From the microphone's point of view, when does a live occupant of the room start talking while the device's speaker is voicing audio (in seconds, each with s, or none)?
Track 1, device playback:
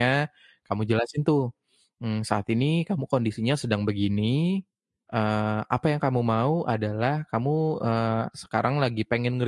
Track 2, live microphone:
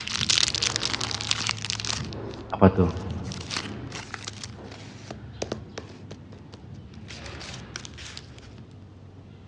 2.5 s